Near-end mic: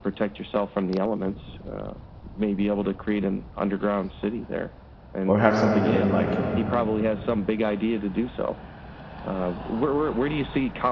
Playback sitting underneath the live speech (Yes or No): Yes